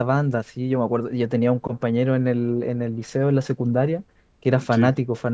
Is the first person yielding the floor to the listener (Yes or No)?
No